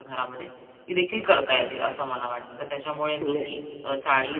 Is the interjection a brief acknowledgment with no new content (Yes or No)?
Yes